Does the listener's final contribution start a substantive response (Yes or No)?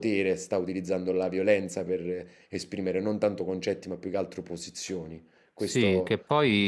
Yes